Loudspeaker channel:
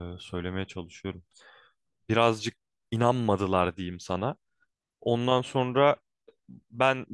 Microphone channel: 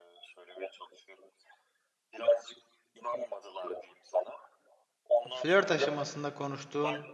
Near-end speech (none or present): present